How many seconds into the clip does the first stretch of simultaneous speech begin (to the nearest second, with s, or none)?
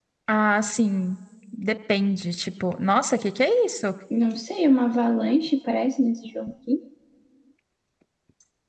none